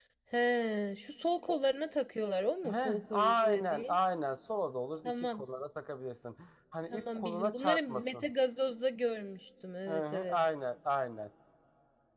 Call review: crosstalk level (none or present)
present